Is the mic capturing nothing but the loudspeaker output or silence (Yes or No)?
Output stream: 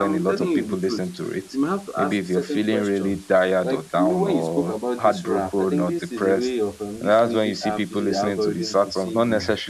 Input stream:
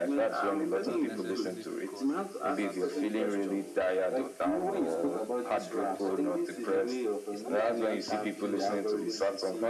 No